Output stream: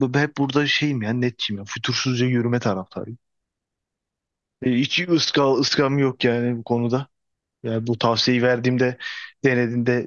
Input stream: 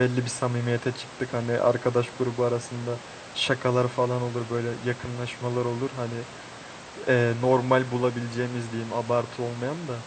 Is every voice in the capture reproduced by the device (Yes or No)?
No